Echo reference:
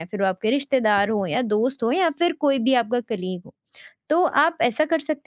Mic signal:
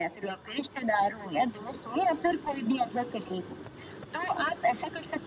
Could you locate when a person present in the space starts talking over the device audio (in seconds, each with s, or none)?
none